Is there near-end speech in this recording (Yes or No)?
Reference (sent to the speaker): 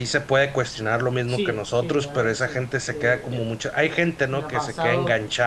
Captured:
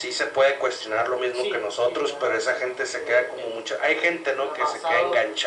No